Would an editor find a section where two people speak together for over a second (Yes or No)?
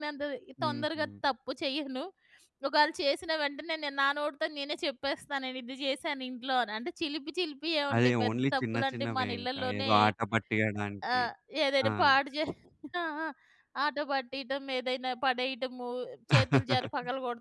Yes